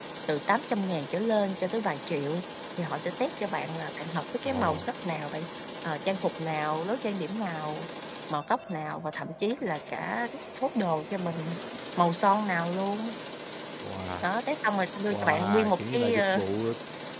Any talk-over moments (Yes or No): Yes